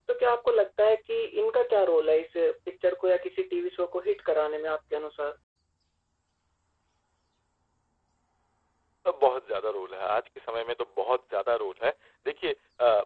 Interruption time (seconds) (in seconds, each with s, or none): none